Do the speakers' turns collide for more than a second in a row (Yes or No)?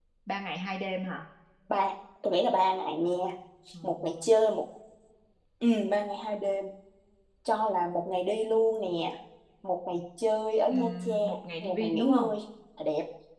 Yes